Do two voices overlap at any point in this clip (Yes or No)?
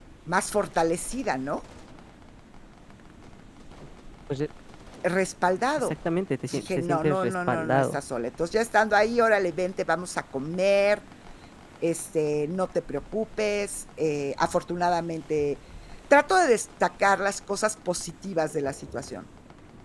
Yes